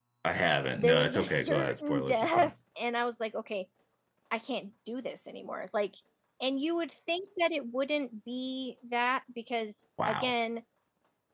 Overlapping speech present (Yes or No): Yes